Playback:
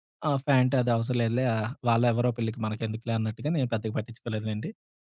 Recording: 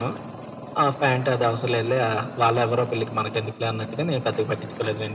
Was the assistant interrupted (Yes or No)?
No